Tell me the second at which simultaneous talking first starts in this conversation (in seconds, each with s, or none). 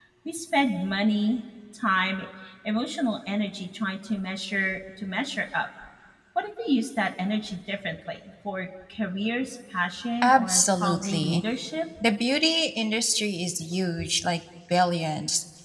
10.2 s